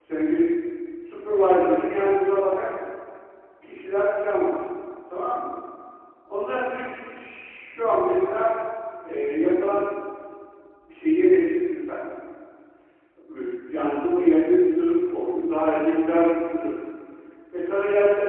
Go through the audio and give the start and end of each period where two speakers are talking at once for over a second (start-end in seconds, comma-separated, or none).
none